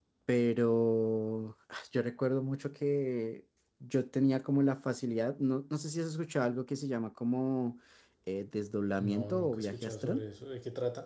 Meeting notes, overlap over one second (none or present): present